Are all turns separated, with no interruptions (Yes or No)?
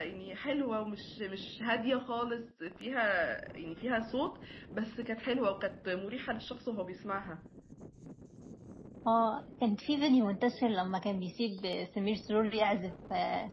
Yes